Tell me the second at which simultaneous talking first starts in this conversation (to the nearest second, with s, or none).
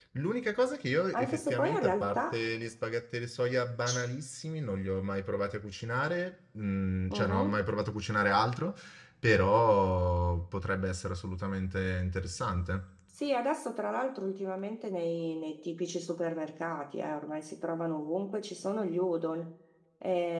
1 s